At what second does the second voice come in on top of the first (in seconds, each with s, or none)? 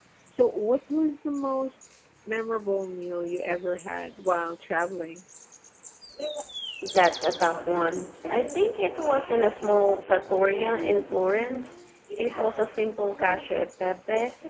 none